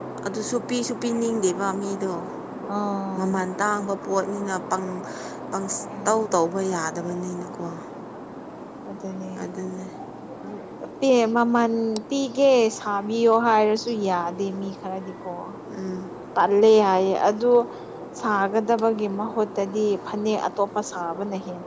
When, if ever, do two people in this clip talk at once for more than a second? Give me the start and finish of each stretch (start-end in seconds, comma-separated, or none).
none